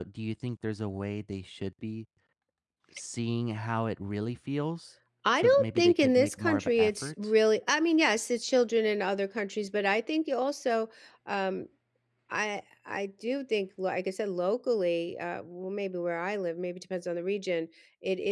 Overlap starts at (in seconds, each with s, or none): 5.2 s